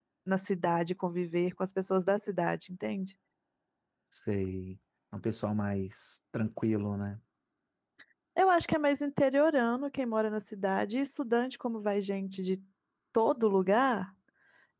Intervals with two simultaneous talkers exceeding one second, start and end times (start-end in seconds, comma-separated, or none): none